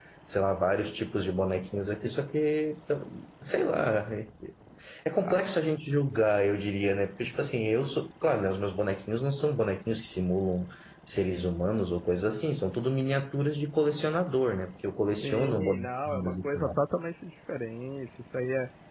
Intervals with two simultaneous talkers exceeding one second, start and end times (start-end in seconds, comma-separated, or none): 15.2-16.8